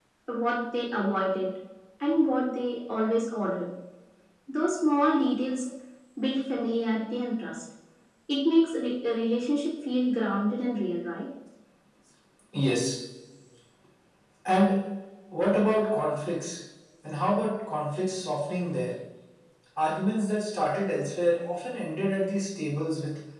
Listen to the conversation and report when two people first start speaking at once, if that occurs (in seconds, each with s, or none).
none